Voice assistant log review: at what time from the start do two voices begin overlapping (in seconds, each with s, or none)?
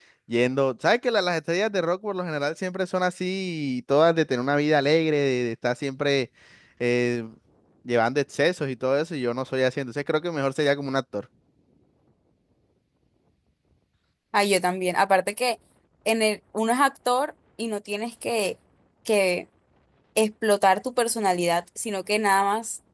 none